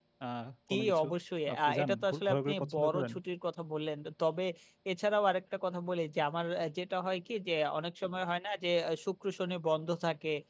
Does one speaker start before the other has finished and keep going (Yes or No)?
Yes